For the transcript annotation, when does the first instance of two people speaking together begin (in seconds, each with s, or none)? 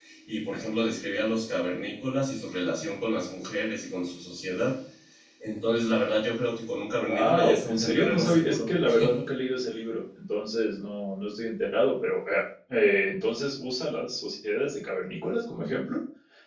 7.0 s